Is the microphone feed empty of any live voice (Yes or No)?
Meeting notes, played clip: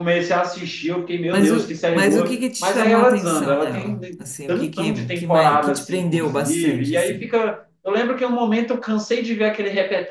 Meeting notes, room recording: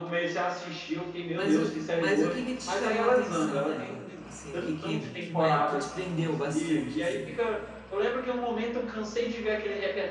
Yes